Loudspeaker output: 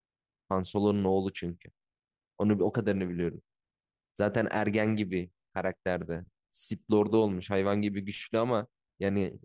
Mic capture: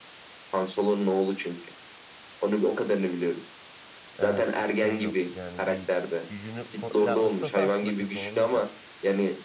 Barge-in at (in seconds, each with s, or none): 4.2 s